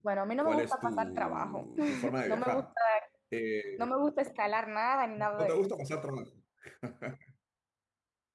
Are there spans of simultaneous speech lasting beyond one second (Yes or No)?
Yes